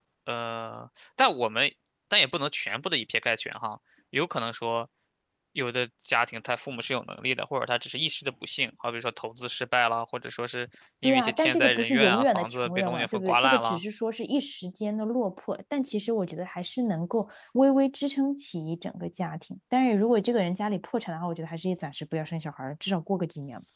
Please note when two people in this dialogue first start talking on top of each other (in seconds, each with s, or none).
11.0 s